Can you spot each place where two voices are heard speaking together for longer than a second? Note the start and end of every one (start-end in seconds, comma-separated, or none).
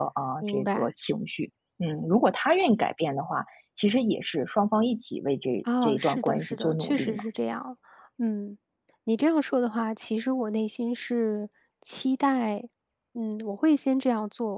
5.8-7.2